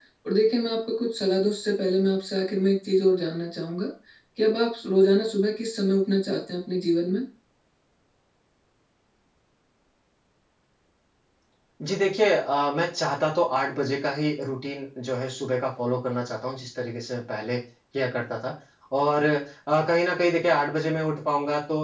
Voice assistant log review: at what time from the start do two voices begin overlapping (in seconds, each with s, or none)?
none